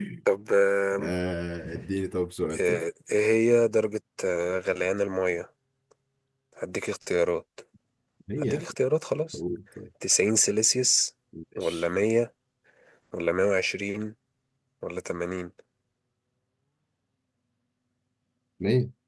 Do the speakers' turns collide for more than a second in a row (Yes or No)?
No